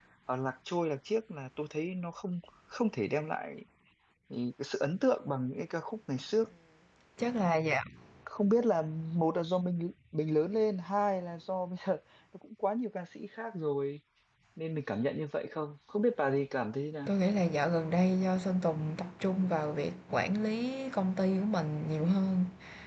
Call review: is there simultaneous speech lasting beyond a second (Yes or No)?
No